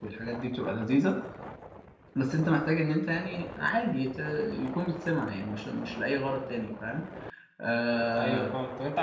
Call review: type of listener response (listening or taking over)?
taking over